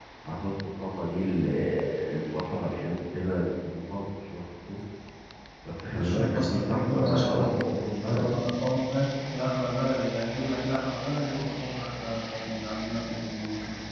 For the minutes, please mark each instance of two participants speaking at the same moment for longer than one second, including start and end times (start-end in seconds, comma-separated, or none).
6.0-7.4